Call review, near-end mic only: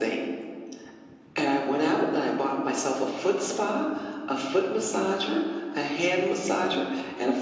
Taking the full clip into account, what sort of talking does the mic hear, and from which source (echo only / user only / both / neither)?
echo only